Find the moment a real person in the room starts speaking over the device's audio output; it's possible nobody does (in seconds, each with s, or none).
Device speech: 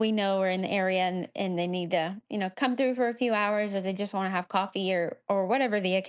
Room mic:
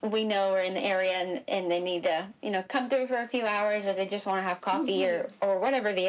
4.7 s